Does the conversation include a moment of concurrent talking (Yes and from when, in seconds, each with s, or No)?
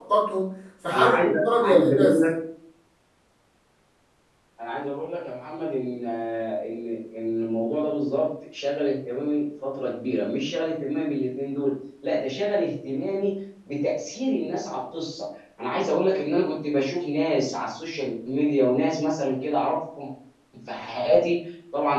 Yes, from 0.9 s